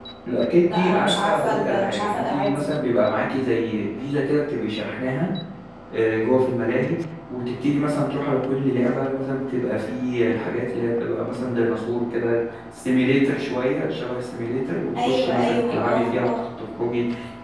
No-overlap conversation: No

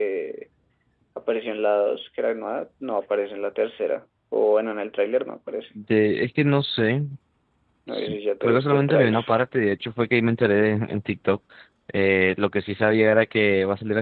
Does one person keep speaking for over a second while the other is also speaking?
Yes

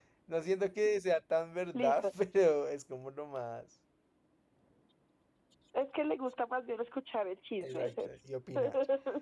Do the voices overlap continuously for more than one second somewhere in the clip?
No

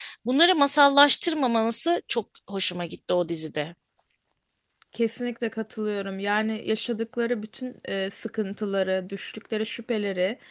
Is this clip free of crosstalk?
Yes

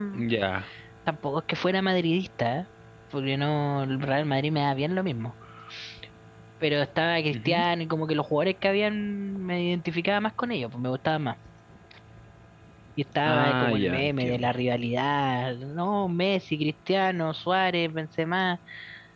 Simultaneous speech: Yes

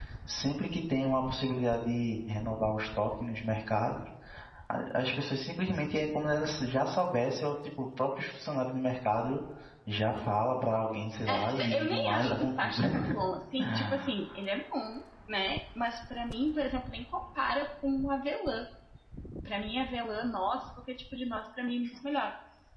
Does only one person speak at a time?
No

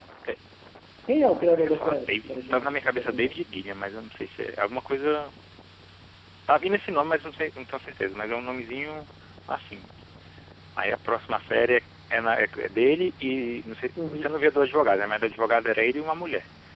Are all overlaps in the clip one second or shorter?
No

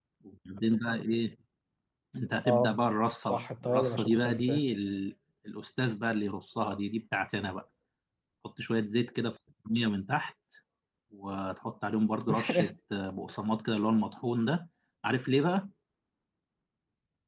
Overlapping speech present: Yes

